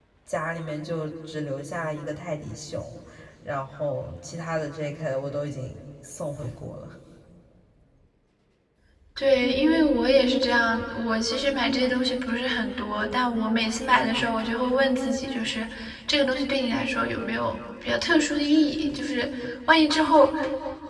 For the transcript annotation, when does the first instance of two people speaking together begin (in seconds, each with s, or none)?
none